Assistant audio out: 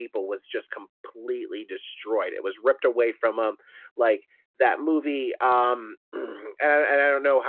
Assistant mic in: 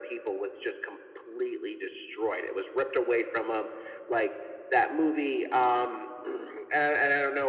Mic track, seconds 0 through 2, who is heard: echo only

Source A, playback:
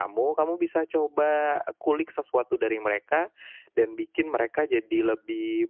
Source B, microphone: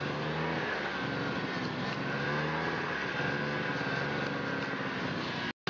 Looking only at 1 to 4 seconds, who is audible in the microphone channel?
neither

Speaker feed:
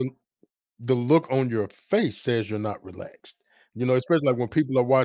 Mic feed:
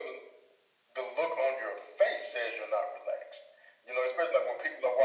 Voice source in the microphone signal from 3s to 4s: echo only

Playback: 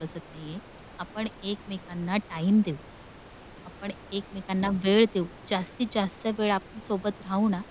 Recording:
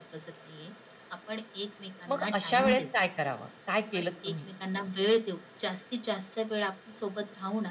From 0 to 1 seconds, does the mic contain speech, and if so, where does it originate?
echo only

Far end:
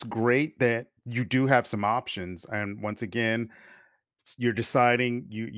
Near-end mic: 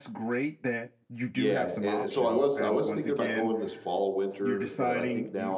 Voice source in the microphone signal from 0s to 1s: echo only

